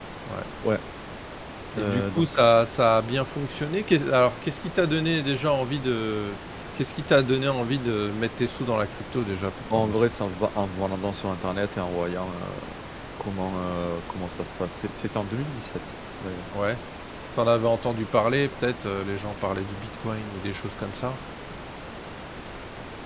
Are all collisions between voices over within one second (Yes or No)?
Yes